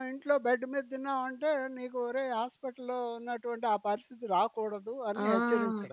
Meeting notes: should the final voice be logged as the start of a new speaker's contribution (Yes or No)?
Yes